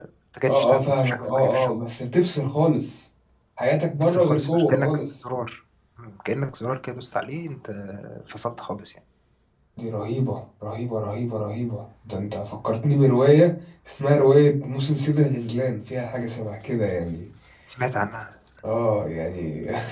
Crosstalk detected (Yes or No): Yes